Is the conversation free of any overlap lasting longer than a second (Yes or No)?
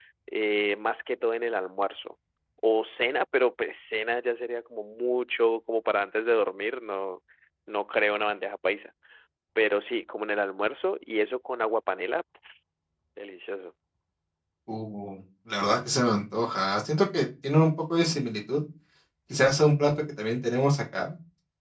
Yes